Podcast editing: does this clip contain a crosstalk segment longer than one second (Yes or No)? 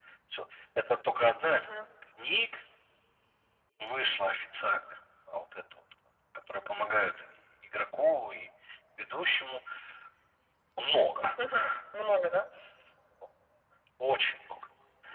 No